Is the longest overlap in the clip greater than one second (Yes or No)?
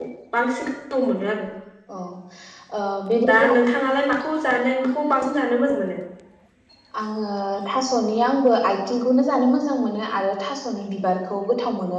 No